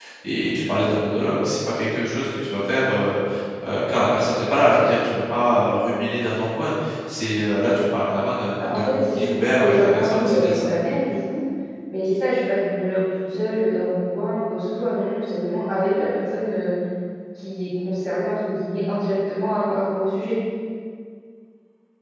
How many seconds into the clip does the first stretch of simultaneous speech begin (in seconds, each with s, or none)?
8.6 s